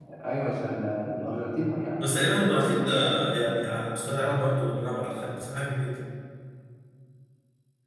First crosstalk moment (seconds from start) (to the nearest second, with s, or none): 2 s